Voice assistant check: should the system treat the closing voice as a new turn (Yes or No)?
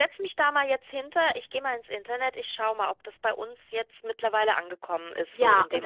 Yes